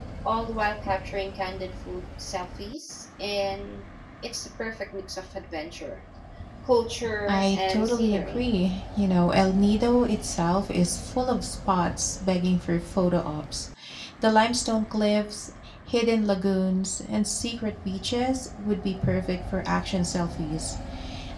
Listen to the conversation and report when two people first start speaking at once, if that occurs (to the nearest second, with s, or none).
7 s